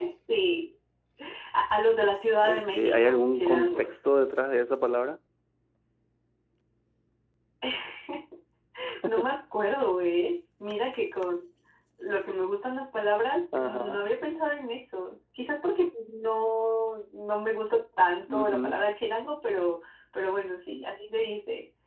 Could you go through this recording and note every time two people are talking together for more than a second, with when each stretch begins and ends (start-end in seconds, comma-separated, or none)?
2.4-3.9